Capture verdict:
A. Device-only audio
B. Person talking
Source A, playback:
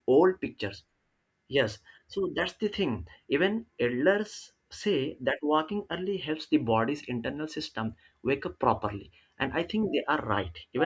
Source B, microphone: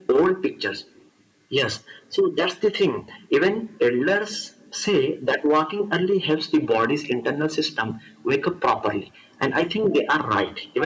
A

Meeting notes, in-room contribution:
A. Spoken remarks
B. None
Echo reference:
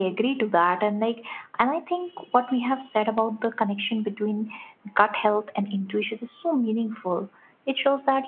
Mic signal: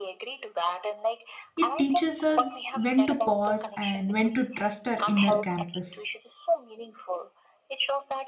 A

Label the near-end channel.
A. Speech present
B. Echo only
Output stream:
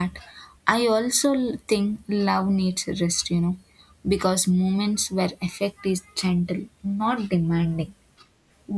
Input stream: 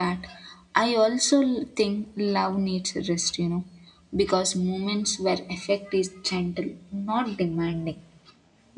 B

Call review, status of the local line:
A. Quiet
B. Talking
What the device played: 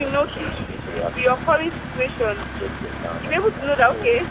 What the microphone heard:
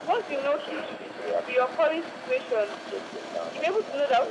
A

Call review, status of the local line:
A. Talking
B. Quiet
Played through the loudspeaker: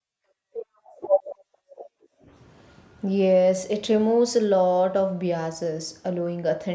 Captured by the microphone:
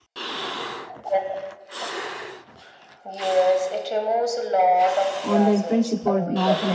A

